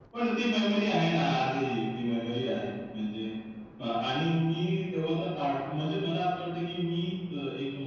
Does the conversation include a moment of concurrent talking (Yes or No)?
No